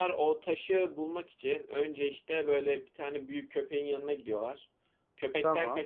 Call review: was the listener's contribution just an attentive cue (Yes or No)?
Yes